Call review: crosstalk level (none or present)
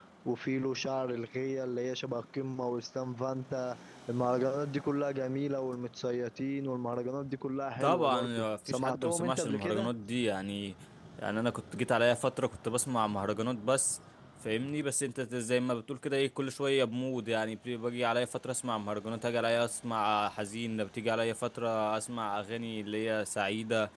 present